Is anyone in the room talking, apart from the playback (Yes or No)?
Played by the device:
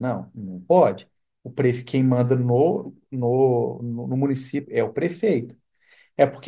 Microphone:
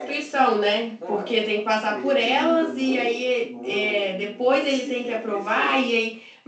Yes